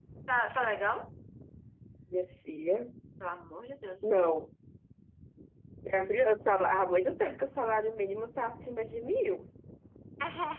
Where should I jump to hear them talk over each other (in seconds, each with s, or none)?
none